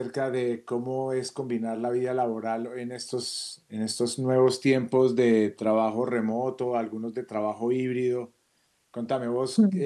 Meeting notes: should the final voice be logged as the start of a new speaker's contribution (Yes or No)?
No